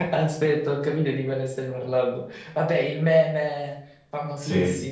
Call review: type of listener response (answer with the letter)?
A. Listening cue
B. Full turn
B